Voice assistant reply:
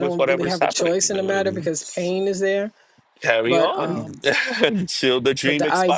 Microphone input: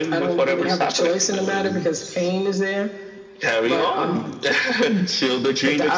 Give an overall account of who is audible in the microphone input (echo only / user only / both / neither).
echo only